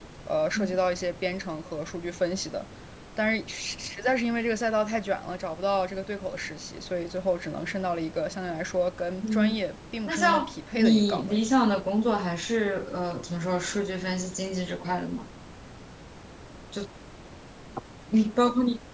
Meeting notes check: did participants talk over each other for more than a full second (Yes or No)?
Yes